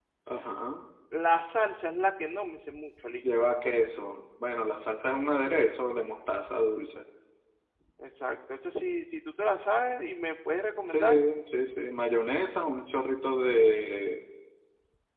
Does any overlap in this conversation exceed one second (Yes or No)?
No